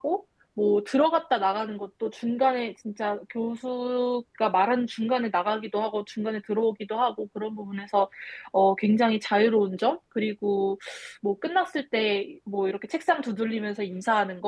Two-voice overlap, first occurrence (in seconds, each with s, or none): none